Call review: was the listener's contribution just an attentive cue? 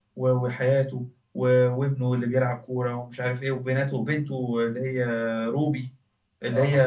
Yes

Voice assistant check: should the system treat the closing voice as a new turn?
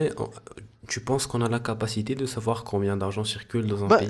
Yes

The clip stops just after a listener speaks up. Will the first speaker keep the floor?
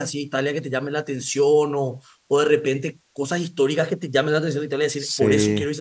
No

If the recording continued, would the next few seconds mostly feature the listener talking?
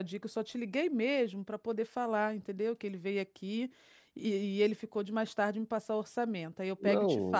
Yes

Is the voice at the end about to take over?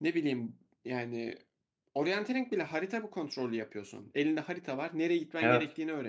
No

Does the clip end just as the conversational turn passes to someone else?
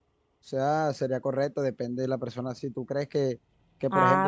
No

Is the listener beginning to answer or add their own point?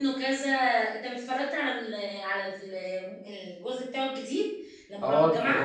Yes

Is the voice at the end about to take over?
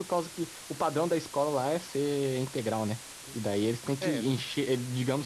No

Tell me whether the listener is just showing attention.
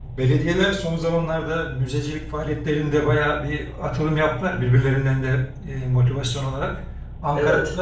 Yes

